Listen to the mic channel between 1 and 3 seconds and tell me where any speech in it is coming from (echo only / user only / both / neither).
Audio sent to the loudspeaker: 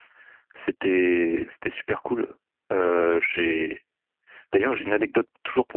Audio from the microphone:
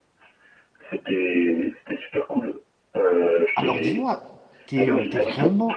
echo only